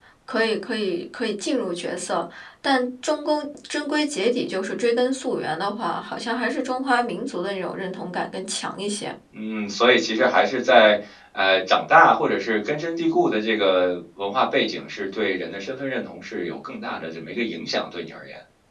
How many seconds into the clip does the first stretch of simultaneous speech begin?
none

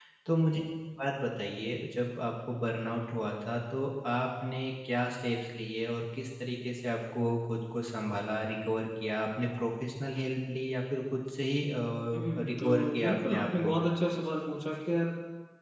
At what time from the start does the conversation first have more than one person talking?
12 s

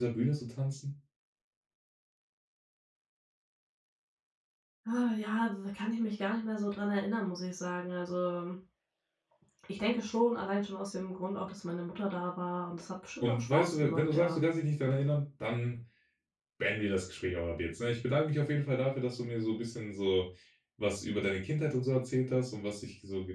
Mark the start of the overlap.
13 s

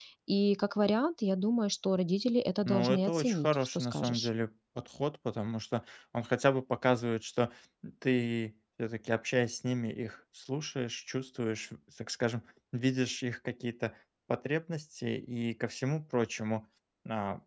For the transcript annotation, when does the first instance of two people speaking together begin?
3 s

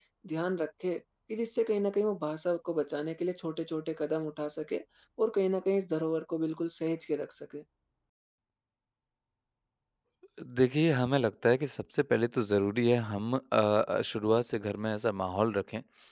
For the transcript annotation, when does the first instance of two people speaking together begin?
none

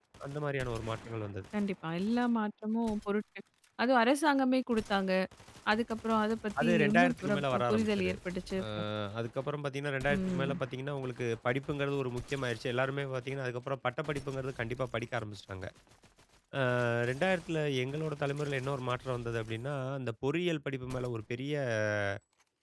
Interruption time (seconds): 7 s

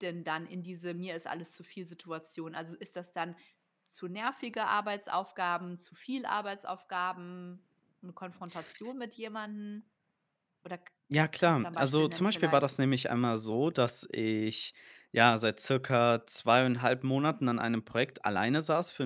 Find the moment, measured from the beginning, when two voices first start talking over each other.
11 s

